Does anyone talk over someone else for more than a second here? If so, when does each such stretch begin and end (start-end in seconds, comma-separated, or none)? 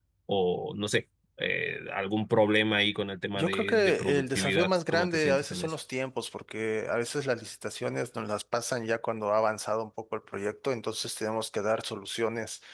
3.3-5.7